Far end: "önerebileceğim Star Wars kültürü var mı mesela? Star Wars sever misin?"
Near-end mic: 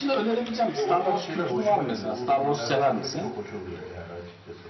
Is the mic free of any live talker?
No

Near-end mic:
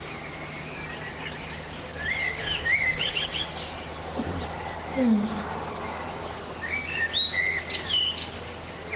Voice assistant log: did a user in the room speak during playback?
Yes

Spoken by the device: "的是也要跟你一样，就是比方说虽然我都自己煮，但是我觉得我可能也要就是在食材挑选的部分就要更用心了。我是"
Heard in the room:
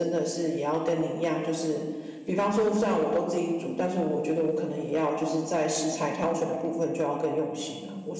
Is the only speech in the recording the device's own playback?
Yes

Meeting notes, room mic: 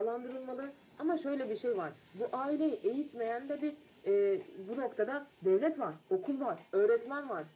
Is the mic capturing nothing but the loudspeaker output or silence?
Yes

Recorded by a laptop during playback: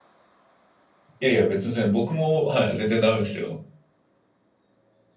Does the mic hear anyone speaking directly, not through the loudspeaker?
Yes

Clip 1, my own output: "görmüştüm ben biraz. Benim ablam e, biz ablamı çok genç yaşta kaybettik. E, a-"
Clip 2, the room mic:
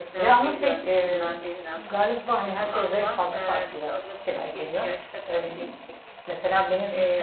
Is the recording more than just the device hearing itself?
Yes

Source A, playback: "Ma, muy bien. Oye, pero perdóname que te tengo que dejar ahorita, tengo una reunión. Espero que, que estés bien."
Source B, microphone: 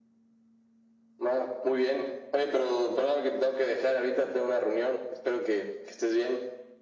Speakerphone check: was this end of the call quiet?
Yes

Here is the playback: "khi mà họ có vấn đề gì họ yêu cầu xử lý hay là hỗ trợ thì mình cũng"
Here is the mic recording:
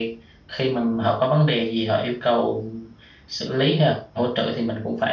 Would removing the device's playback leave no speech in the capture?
Yes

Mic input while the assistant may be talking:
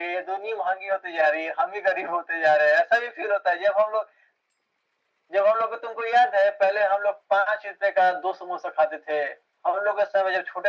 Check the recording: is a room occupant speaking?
No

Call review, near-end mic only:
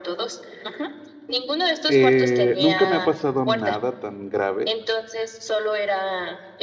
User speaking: Yes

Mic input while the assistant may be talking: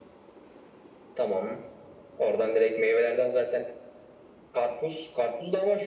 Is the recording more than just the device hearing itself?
No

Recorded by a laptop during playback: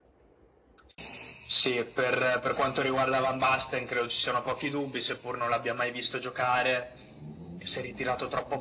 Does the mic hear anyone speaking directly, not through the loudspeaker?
No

